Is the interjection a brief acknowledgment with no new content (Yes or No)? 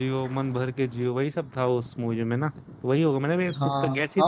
No